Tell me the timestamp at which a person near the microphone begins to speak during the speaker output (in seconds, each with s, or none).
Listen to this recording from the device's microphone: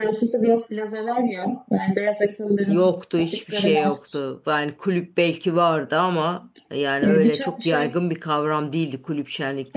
2.7 s